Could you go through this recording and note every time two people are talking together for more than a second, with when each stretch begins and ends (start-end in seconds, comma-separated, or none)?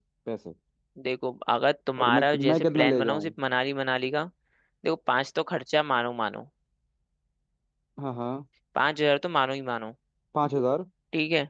2.0-3.3